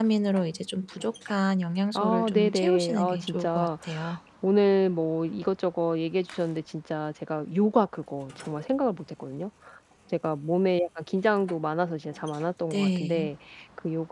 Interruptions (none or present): present